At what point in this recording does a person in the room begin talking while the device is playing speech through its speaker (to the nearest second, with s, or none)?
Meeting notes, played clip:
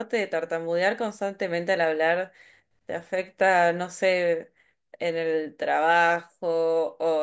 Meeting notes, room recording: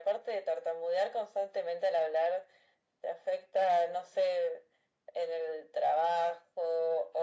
none